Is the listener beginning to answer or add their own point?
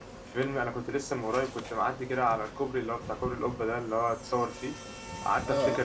No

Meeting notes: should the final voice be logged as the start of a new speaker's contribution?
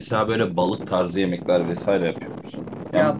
Yes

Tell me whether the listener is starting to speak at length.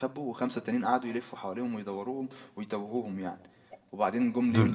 Yes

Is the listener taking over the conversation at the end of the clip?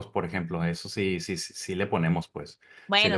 Yes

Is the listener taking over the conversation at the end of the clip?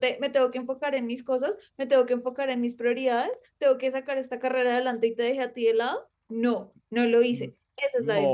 Yes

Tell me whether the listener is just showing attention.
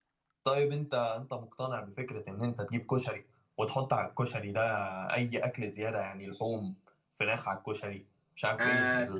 No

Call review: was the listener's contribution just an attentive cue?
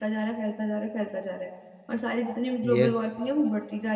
Yes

